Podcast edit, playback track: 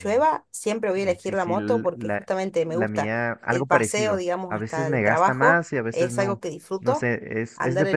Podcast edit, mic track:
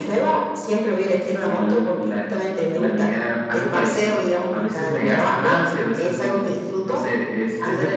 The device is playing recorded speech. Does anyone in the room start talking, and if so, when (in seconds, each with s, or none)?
none